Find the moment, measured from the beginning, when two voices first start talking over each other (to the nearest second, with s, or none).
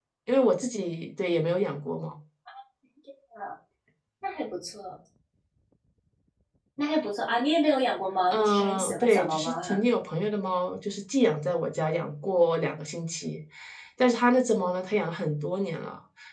8 s